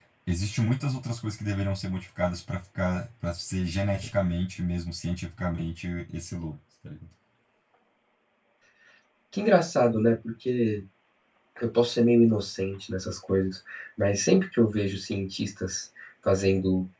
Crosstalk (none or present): none